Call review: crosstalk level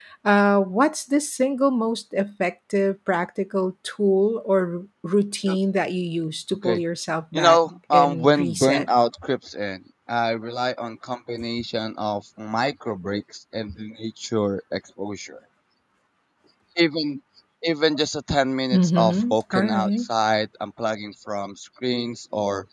present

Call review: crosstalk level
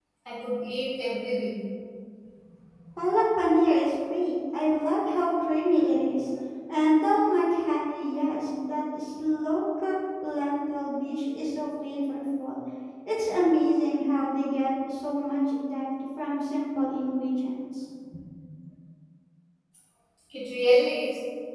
none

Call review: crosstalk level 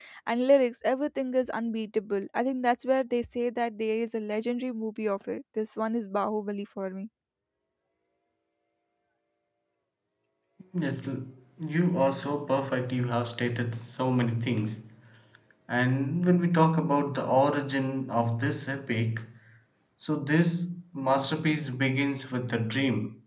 none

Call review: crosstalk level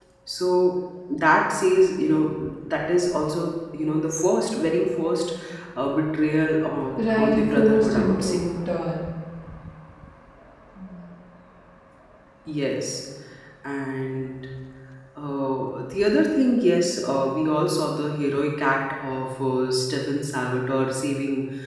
present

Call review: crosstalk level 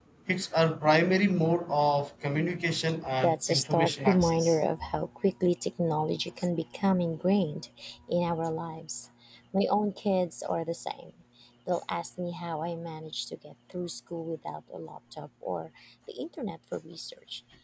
present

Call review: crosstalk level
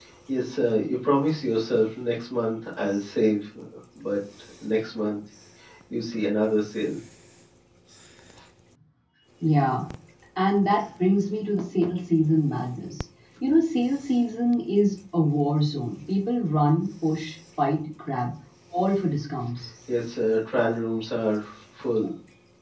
none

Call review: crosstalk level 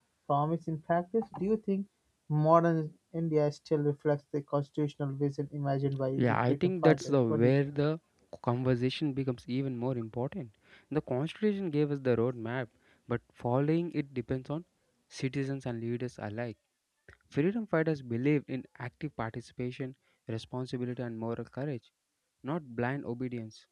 present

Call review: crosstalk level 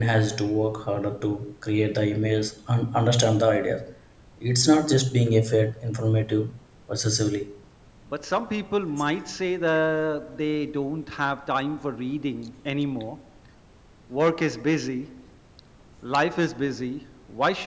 none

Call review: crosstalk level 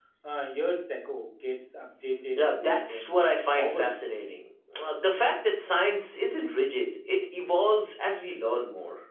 present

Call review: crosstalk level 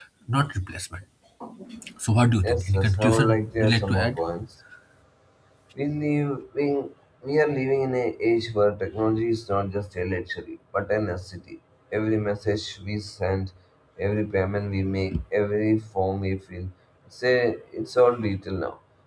present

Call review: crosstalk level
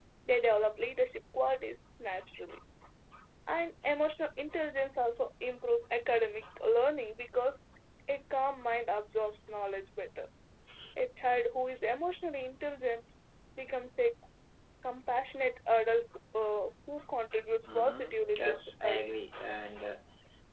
present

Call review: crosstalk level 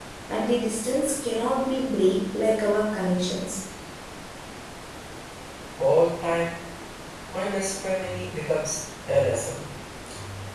none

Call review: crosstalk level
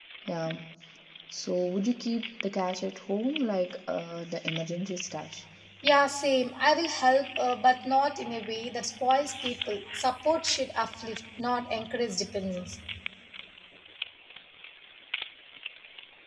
none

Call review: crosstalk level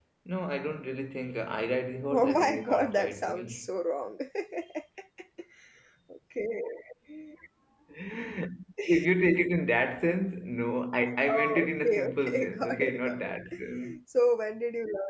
present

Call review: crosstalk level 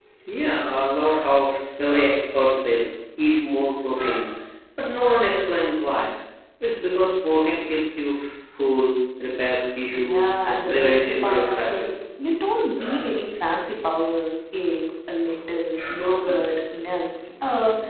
present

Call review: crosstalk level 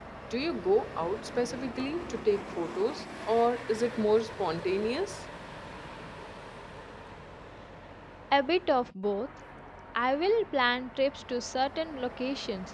none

